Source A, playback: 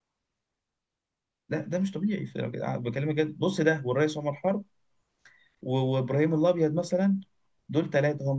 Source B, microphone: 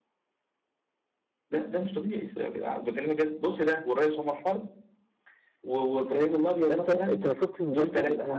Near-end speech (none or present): present